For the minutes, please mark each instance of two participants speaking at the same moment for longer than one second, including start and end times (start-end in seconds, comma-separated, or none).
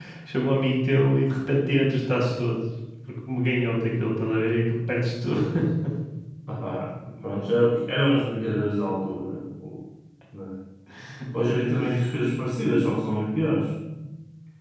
none